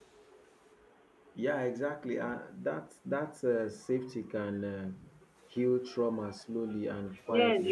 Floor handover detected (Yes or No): Yes